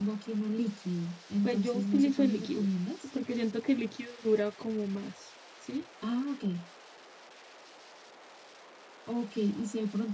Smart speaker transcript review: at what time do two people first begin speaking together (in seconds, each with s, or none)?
1.4 s